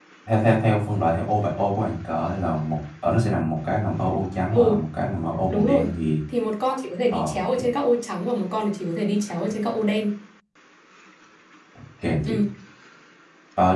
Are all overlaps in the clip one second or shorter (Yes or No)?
Yes